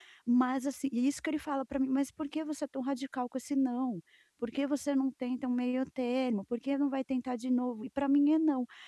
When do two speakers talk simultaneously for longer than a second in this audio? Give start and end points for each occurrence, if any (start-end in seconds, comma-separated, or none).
none